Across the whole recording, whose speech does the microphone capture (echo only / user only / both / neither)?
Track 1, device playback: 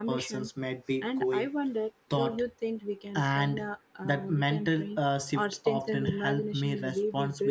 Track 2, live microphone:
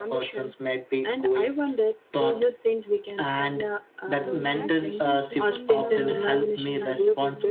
both